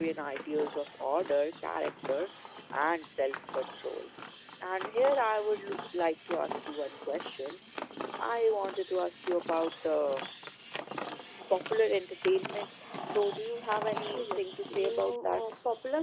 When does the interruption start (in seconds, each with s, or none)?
14.1 s